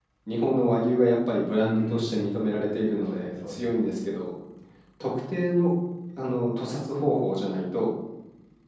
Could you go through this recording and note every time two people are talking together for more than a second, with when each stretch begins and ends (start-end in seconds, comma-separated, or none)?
1.6-3.8